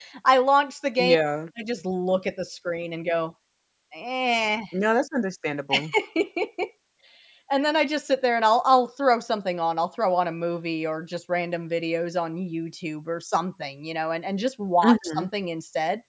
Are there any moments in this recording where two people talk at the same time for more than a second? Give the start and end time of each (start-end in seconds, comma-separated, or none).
none